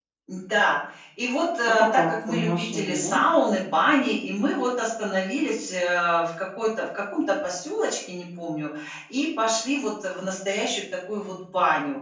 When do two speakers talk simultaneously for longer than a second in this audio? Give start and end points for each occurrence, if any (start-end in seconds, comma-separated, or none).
1.7-3.2